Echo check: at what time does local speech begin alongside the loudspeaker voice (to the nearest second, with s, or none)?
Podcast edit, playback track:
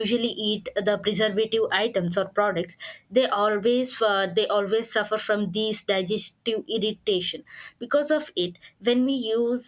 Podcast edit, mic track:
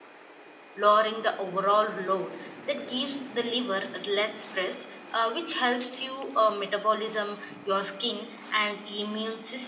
1 s